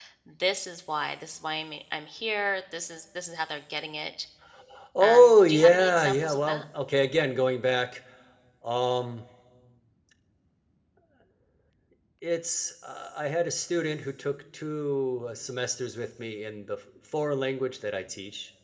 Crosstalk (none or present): present